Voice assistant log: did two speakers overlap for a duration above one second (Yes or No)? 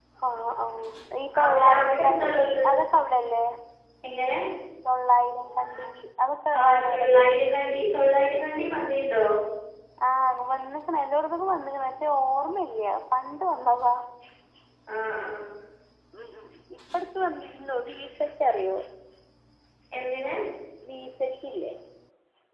Yes